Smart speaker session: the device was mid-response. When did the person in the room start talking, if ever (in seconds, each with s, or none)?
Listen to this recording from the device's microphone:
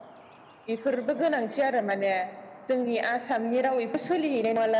none